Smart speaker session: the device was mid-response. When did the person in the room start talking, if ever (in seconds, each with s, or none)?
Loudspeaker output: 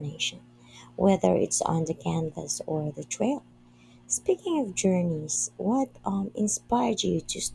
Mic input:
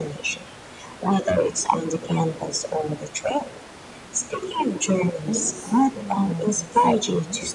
5.2 s